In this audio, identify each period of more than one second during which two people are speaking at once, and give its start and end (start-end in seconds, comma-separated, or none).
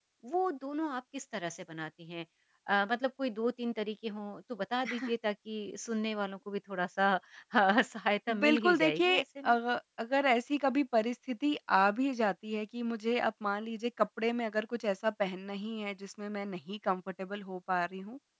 8.3-9.6